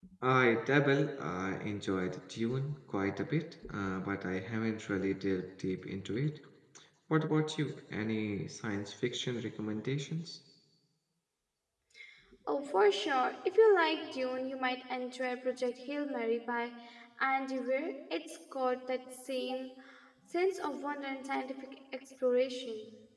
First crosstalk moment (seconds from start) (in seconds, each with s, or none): none